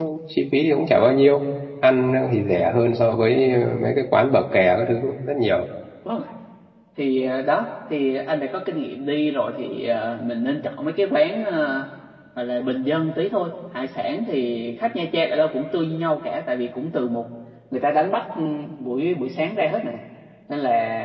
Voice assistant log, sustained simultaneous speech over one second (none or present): none